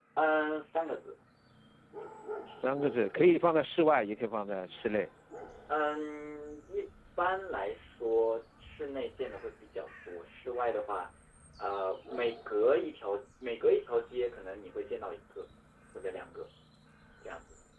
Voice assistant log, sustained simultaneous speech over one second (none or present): none